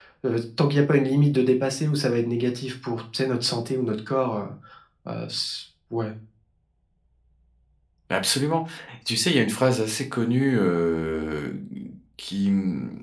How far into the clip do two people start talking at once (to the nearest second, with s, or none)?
none